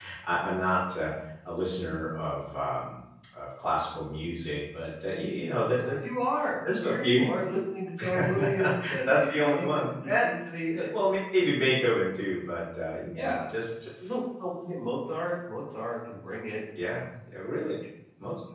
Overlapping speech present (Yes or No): Yes